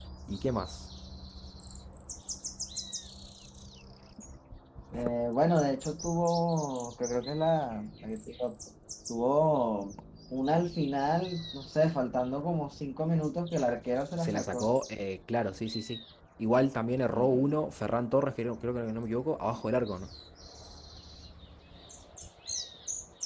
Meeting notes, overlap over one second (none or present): none